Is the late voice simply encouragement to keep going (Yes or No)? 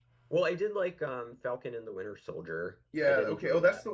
No